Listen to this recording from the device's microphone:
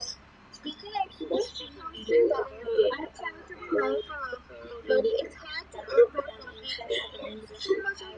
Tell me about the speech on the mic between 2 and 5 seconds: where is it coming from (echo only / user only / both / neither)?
echo only